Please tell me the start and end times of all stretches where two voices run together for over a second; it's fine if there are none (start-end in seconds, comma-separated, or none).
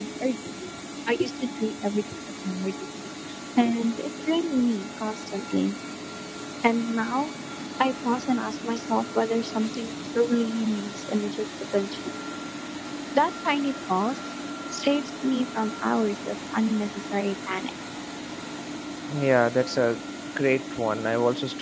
none